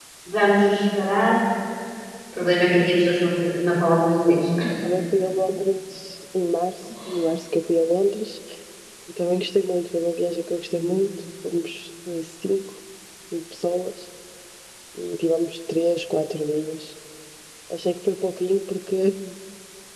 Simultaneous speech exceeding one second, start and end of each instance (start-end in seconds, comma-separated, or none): none